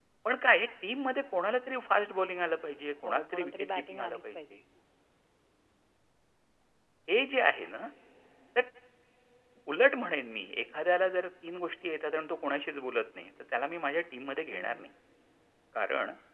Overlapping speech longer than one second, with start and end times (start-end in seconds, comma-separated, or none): 3.0-4.4